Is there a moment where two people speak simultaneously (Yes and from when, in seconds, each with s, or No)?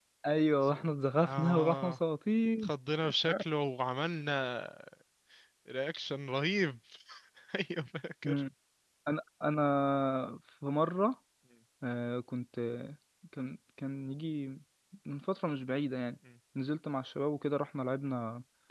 Yes, from 0.5 s